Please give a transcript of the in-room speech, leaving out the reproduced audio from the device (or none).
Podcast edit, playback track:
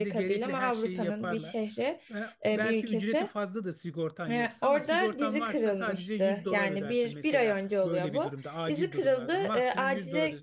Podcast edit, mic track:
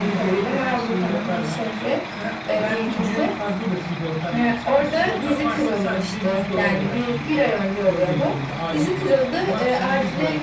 none